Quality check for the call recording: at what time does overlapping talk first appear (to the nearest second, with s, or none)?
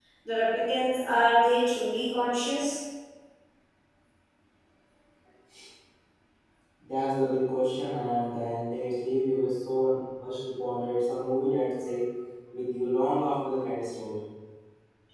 none